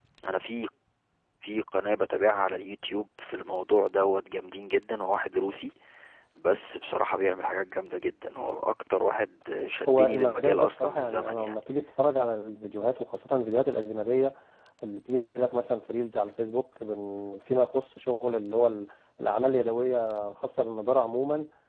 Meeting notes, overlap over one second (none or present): present